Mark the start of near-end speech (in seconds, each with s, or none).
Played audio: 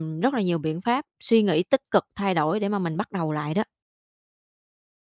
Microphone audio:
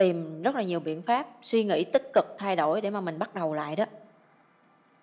none